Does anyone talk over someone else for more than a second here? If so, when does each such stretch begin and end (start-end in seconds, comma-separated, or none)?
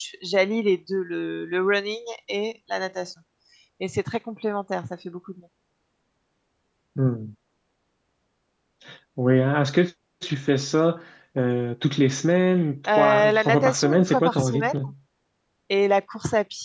13.0-14.8